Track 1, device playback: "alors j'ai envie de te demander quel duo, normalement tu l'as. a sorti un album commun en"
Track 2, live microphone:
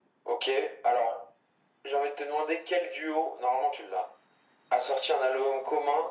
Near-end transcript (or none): none